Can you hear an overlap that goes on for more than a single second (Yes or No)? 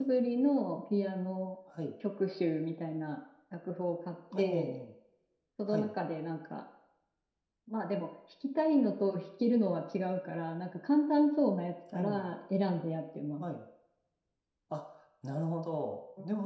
No